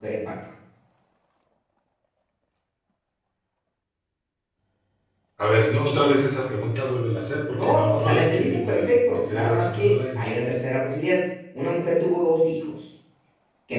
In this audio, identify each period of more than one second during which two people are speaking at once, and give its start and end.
7.5-10.3

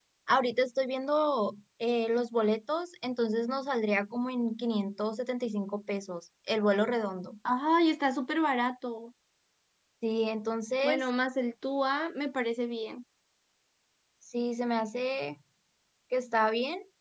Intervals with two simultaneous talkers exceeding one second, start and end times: none

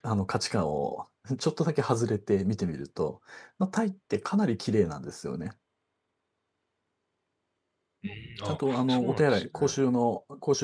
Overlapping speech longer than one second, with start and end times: 8.4-9.8

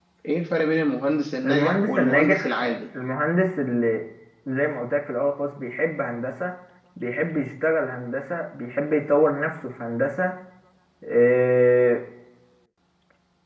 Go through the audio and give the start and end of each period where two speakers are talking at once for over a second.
1.4-2.8

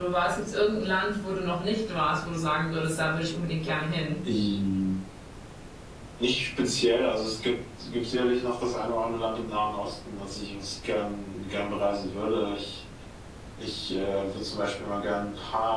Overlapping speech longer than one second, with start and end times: none

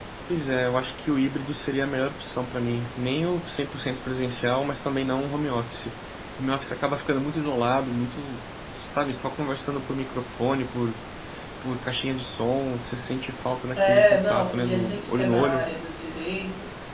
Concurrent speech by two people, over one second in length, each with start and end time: 13.7-15.7

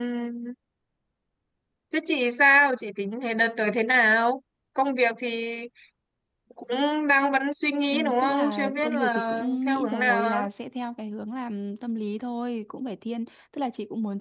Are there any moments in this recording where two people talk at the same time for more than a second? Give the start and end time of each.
7.9-10.4

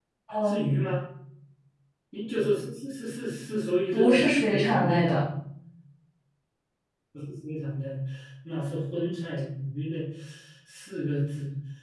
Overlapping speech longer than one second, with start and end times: 3.9-5.2

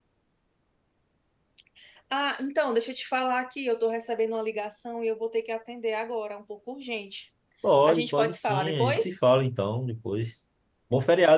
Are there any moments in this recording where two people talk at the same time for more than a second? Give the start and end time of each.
7.8-9.2

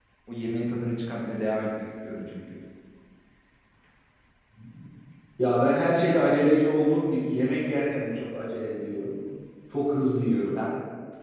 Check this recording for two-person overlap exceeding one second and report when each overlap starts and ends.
none

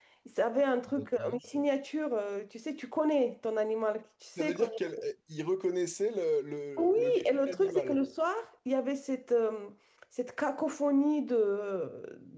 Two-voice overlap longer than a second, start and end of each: 6.8-8.0

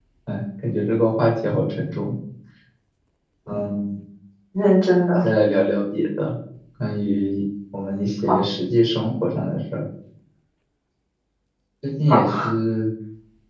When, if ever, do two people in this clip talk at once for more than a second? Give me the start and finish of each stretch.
none

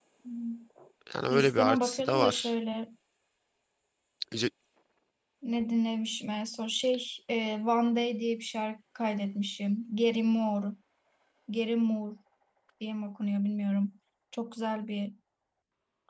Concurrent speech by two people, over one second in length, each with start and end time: 1.3-2.5

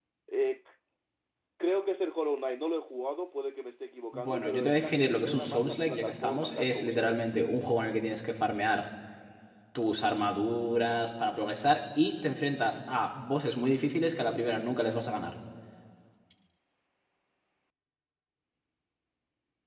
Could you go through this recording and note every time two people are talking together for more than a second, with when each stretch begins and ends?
4.1-7.2

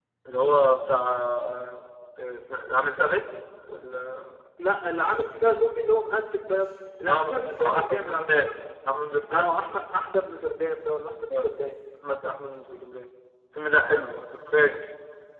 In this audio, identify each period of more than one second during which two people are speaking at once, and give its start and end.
7.1-8.5

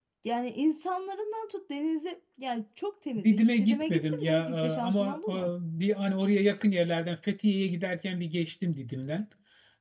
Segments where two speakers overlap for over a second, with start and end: 3.2-5.3

